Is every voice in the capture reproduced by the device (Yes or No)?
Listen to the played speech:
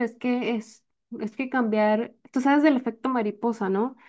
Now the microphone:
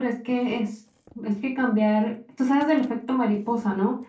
Yes